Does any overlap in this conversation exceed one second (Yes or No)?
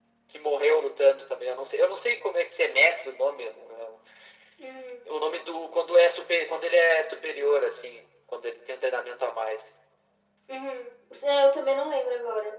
No